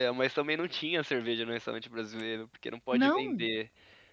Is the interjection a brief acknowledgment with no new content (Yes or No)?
Yes